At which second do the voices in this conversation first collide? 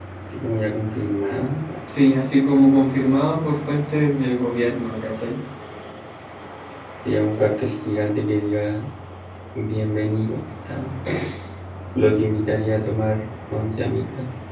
none

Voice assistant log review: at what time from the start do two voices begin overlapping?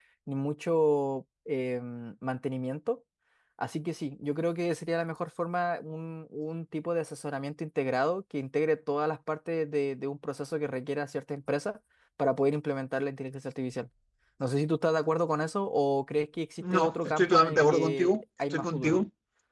16.6 s

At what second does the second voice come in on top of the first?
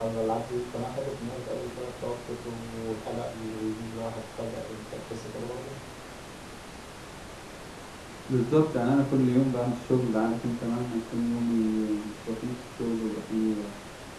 none

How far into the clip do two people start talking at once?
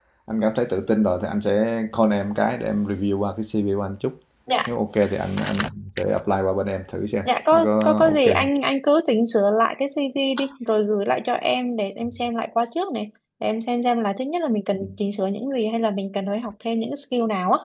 7.2 s

